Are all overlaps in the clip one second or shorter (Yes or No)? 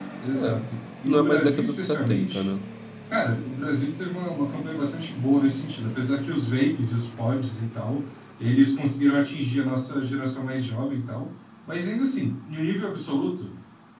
No